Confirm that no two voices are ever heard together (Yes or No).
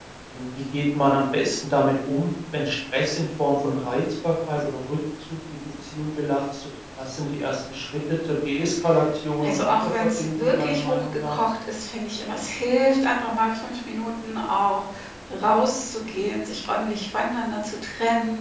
No